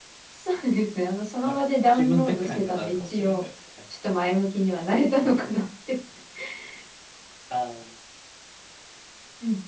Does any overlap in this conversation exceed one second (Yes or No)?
Yes